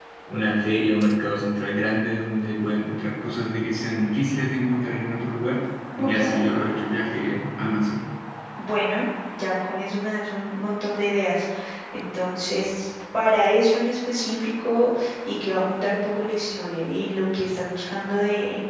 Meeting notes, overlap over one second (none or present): none